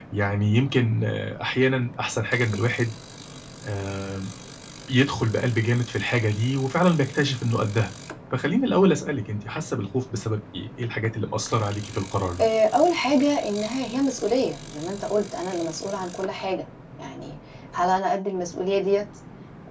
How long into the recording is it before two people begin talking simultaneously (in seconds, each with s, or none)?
none